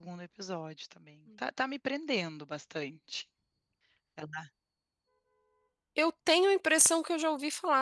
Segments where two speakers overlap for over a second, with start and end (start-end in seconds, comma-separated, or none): none